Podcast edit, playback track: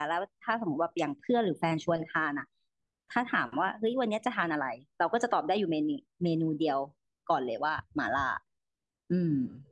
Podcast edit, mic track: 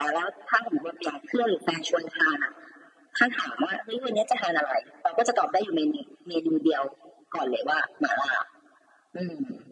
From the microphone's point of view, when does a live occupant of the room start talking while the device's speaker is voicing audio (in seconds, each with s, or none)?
none